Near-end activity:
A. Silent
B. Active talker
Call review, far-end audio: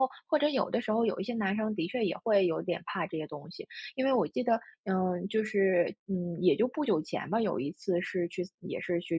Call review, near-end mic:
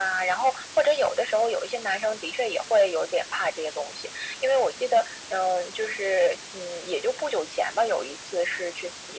A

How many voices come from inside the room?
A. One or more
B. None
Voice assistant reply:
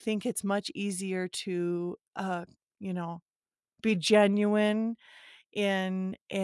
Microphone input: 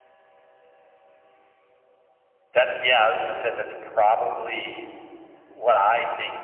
A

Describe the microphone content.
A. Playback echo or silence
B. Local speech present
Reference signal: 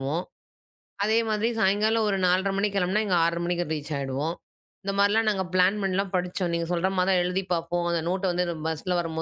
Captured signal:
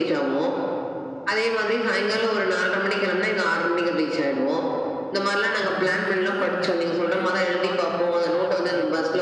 B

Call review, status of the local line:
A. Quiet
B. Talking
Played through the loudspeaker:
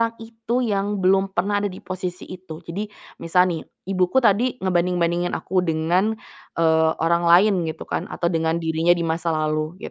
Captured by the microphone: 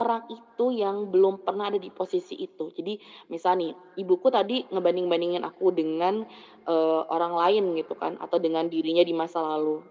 A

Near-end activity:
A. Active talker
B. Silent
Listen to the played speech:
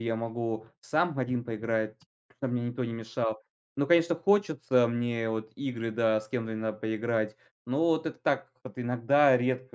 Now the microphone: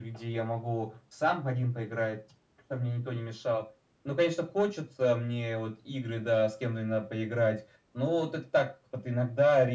B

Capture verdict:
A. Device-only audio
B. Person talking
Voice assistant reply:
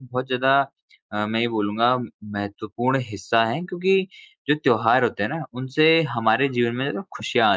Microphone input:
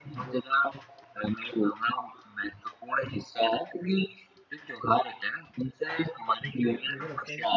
B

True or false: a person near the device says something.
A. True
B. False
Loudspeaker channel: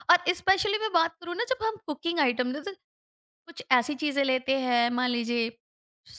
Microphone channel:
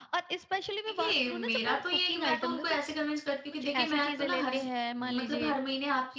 A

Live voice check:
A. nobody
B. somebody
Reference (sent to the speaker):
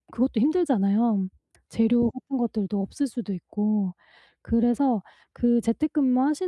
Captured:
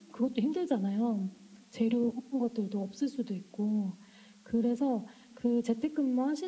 A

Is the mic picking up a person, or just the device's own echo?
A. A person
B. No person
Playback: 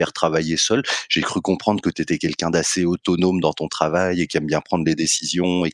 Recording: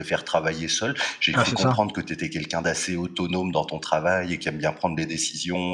A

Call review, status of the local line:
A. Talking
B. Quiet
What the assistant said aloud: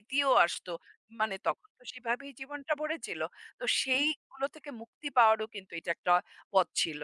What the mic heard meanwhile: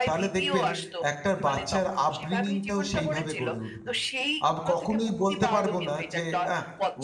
A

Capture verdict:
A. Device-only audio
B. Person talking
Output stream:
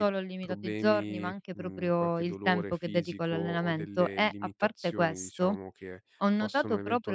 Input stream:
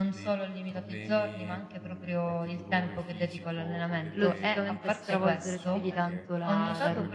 B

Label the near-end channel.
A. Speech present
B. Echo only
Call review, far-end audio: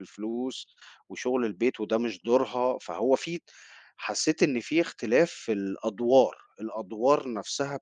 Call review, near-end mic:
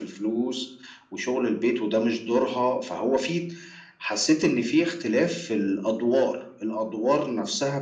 B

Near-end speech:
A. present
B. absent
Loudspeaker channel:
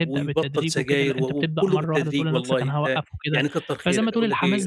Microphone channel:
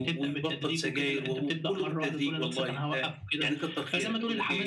B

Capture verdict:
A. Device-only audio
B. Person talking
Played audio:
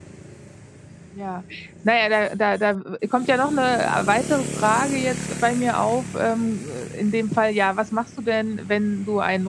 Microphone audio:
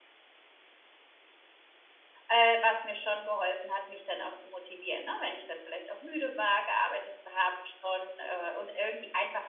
B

